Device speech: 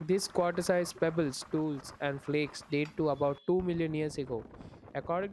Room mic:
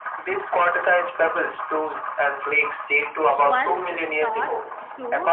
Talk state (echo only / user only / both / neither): both